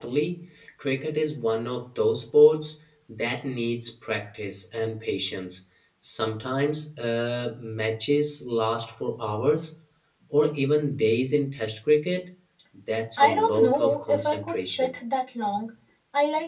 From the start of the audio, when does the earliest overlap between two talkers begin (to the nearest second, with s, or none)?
13 s